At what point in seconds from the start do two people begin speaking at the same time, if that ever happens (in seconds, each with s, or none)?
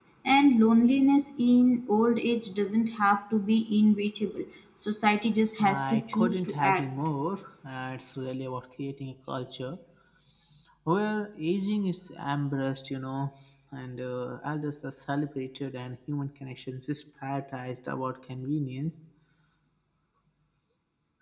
5.6 s